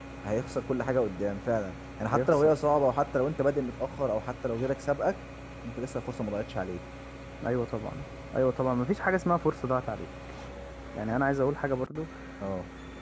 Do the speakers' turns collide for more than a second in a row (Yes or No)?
No